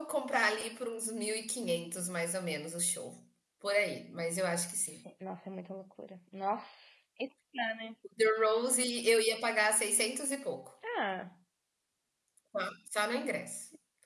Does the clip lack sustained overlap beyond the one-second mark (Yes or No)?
Yes